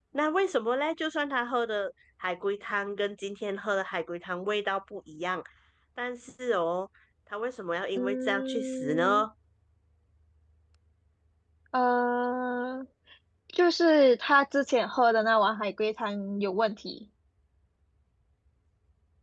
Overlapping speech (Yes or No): Yes